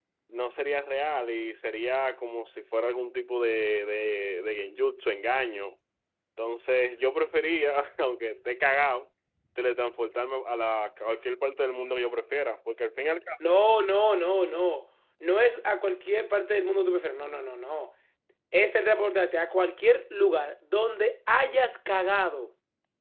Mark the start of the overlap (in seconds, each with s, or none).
none